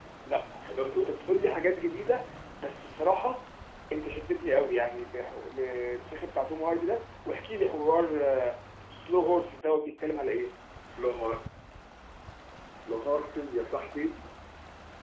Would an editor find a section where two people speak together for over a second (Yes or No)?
No